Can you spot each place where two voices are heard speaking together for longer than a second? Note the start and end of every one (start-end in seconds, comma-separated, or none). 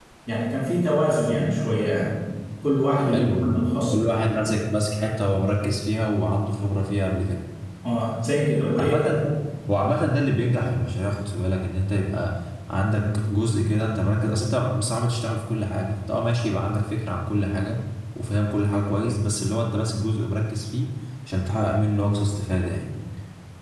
3.0-4.2